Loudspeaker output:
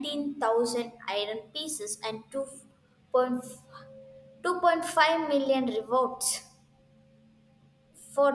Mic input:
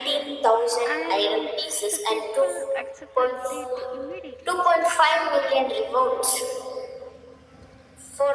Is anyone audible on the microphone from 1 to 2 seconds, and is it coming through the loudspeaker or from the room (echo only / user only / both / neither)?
both